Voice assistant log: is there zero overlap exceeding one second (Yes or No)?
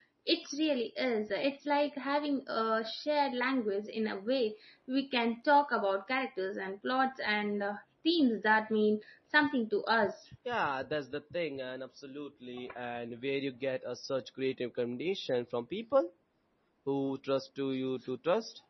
Yes